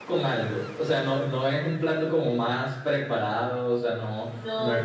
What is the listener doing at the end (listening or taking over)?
listening